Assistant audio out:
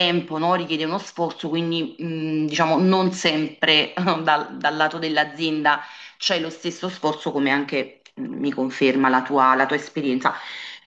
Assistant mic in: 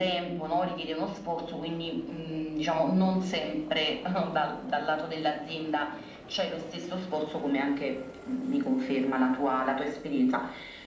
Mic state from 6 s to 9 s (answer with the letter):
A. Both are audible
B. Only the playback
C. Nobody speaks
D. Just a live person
B